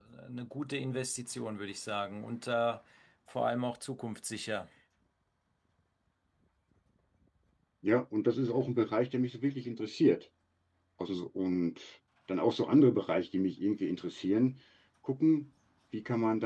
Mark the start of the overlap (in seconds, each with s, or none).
none